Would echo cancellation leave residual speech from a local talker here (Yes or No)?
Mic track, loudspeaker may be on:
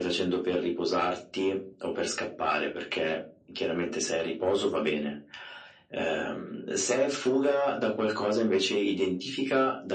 No